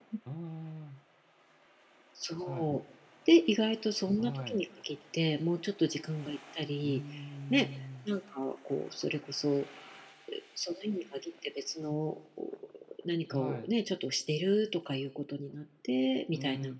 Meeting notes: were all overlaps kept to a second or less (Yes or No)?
Yes